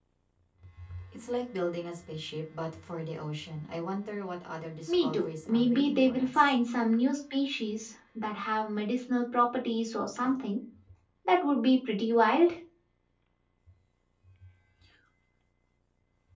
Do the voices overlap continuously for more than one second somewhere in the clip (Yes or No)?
Yes